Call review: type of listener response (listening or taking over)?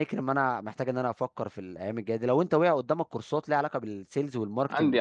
taking over